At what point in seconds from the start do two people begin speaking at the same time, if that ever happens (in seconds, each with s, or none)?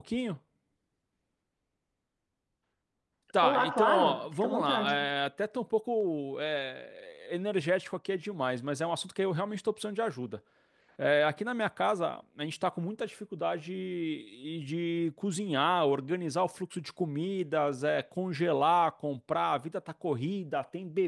3.4 s